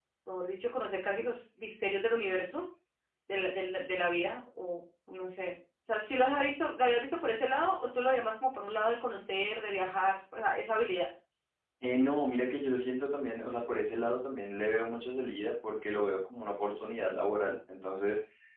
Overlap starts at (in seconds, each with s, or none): none